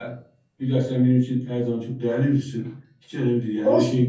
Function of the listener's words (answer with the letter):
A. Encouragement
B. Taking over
A